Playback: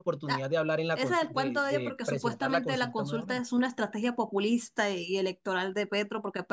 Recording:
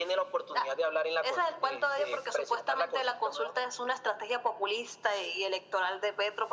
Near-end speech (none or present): none